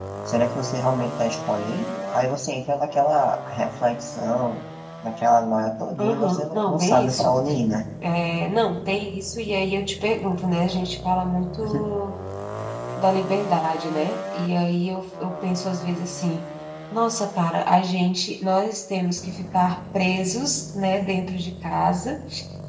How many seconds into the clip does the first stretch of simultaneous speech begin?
6.0 s

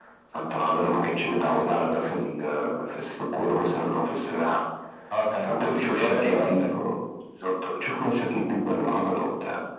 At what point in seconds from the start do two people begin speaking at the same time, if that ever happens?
5.4 s

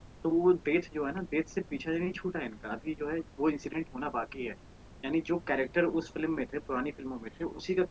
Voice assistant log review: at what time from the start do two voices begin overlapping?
none

